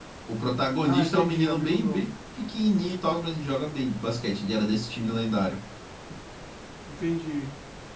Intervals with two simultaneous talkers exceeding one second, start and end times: 0.8-2.1

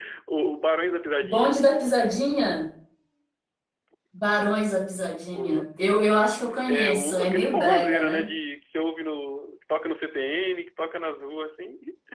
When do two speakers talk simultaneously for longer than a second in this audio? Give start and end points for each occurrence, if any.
6.7-8.2

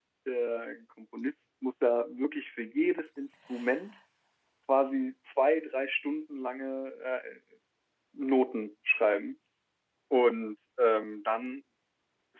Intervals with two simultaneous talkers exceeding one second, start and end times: none

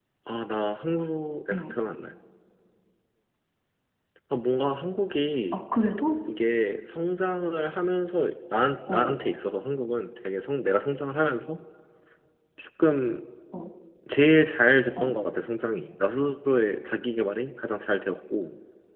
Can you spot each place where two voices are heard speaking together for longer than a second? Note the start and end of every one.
none

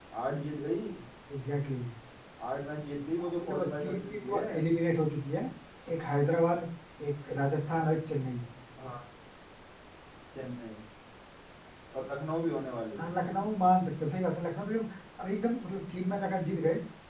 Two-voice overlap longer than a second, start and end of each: 3.2-4.5

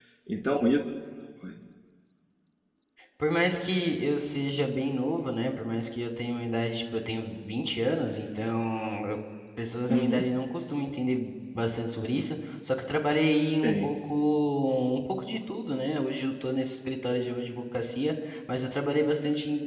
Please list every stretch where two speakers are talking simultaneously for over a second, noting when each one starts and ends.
none

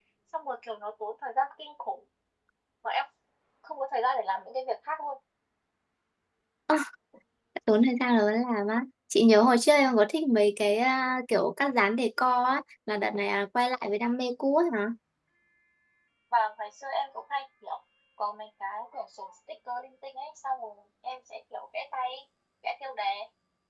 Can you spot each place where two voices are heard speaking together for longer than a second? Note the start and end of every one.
none

